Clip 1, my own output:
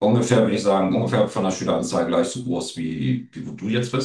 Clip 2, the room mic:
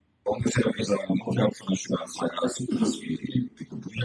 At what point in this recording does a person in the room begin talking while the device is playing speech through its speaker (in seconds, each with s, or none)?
2.7 s